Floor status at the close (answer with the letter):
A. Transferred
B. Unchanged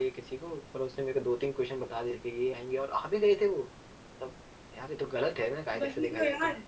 A